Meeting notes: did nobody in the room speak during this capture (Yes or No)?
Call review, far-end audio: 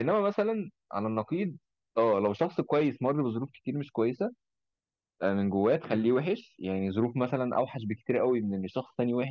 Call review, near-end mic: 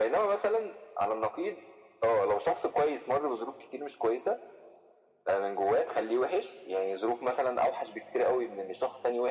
Yes